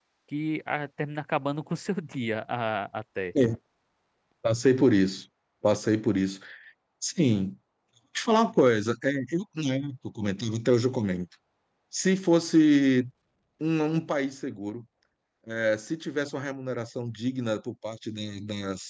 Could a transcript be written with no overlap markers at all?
Yes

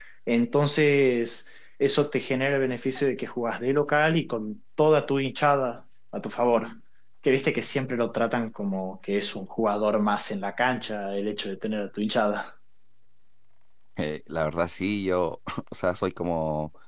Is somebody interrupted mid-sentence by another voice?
No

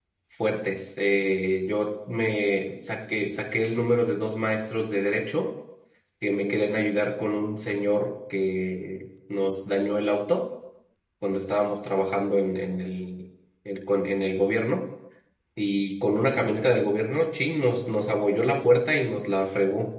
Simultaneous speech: No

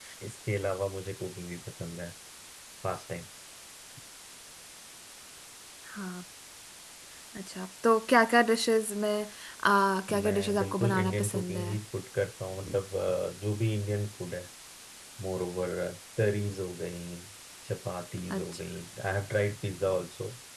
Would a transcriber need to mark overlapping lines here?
Yes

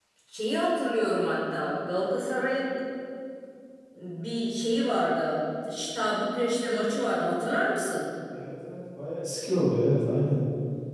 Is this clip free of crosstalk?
Yes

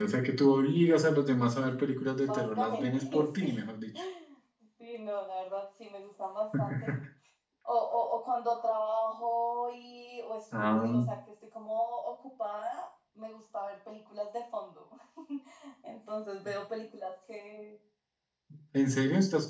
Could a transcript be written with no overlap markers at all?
No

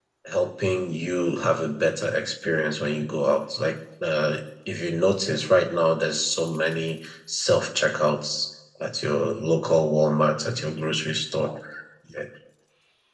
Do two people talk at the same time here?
No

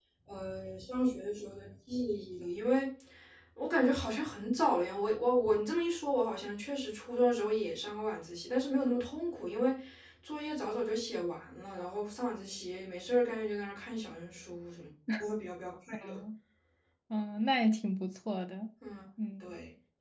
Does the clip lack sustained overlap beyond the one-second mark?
Yes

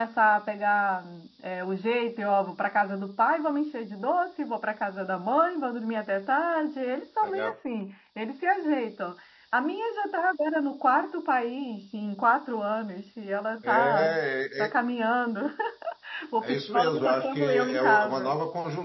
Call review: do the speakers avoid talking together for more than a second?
No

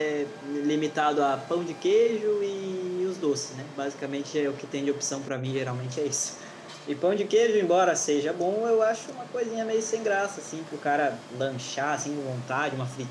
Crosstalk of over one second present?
No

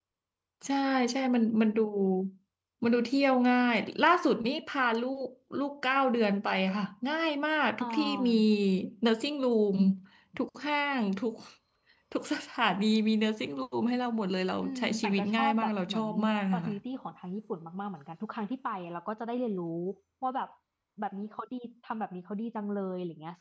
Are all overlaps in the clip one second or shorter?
No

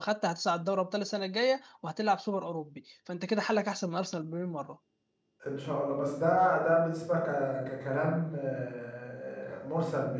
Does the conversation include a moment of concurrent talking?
No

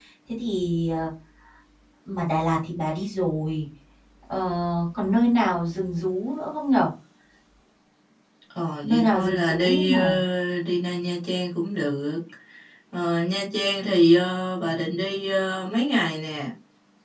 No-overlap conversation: No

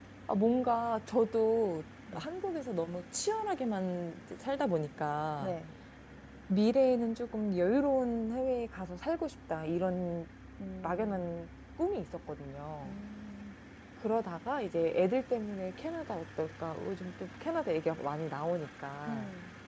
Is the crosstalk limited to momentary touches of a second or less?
Yes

